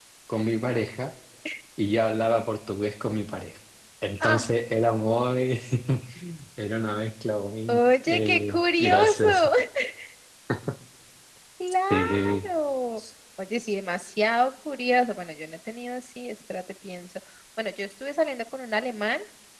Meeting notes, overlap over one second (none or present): present